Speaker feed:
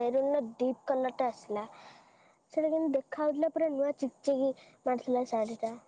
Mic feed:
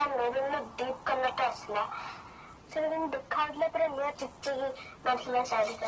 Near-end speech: none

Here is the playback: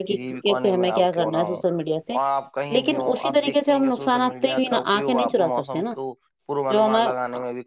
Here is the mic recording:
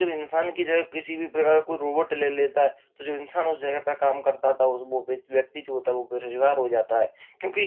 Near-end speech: present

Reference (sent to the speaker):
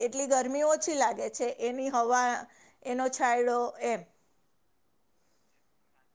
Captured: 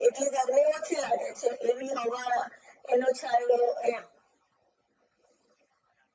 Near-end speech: none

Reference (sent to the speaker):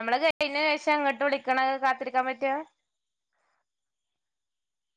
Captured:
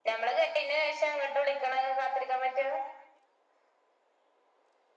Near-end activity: none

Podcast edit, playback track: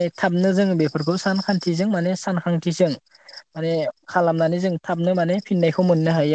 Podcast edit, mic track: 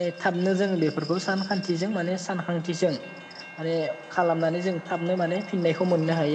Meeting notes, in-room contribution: none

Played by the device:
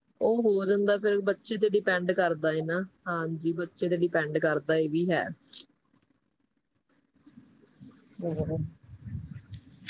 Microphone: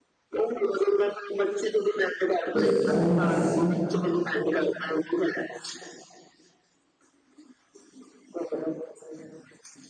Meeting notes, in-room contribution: present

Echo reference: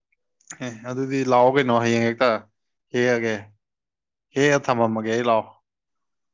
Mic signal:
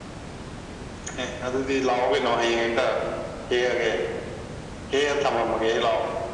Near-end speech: none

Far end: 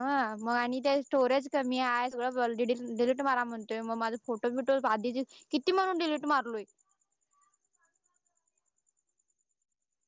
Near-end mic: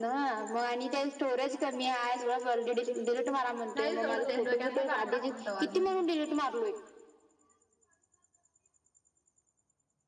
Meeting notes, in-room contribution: present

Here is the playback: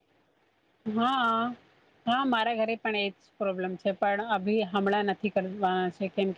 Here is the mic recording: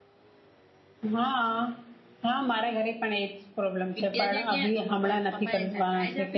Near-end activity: present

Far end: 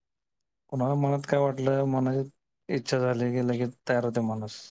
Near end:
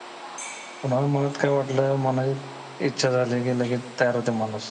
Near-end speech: none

